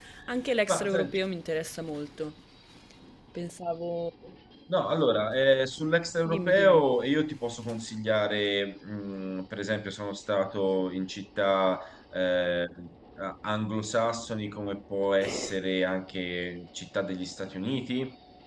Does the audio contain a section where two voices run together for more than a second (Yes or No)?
No